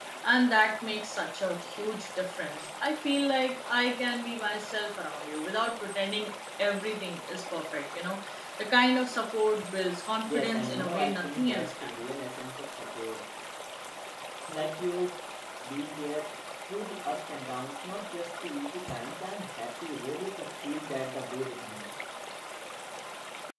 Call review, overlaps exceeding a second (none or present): present